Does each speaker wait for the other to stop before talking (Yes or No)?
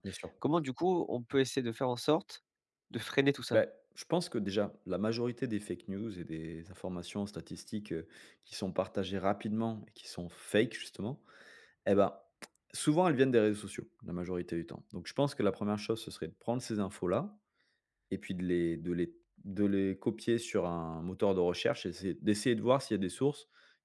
Yes